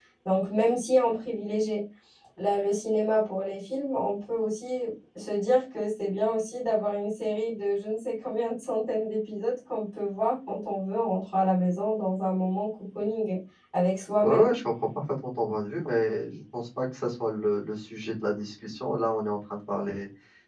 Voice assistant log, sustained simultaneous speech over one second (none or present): none